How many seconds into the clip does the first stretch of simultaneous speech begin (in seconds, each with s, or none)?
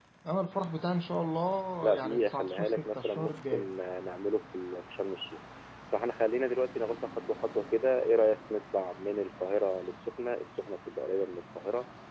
1.8 s